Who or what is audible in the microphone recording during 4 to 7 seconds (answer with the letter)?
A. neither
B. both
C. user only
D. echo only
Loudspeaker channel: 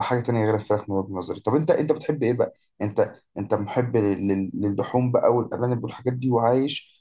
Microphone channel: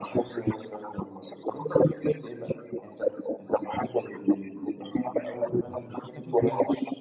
B